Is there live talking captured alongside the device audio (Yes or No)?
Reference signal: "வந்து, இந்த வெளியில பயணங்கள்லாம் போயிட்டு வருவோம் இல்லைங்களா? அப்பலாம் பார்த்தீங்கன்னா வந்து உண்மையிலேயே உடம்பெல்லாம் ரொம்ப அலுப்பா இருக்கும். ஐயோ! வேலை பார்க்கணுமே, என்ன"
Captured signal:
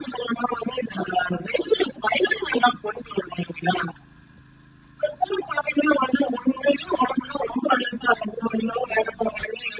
No